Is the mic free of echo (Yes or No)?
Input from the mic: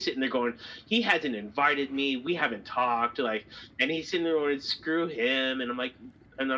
No